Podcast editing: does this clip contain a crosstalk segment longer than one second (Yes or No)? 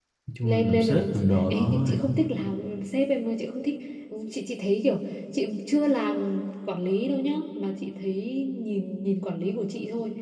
Yes